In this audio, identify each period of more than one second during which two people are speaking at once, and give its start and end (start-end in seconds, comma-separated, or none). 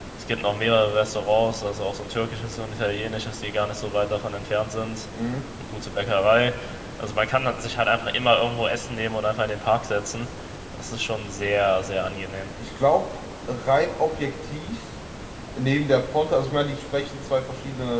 none